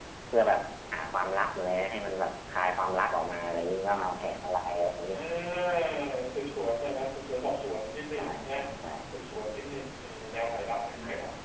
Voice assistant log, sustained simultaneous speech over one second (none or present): none